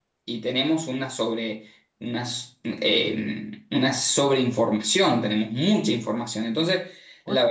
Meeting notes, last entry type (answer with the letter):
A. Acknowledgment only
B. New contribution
A